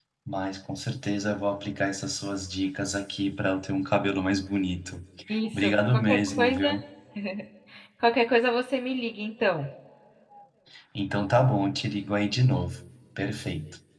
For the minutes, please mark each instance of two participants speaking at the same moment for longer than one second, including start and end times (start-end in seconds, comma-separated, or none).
5.5-6.8